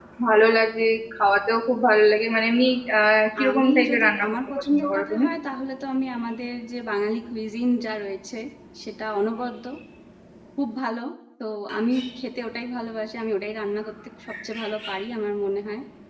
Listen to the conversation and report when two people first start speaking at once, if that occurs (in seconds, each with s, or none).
3.4 s